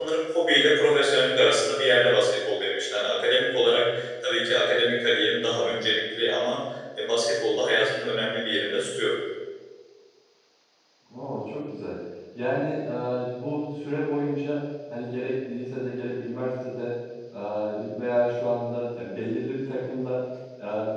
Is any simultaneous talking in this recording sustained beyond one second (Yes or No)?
No